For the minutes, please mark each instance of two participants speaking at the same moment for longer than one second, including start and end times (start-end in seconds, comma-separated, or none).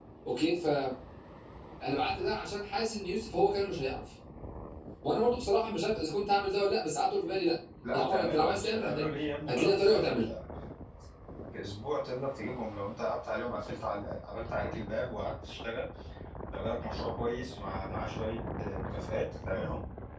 7.9-10.2